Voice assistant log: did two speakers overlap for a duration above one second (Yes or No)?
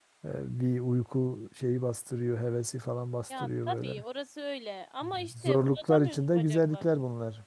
Yes